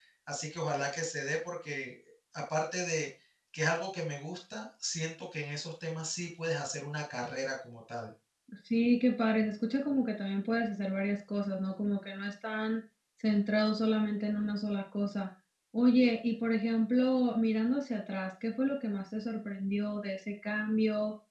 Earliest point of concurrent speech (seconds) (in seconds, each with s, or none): none